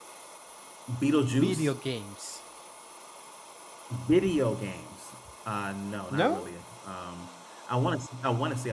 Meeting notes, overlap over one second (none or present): none